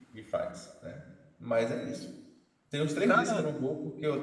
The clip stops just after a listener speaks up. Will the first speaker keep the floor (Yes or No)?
Yes